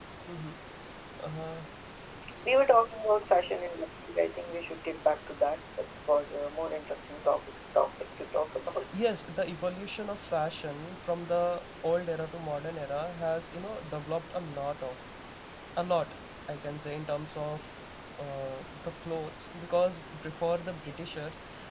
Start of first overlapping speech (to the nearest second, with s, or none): none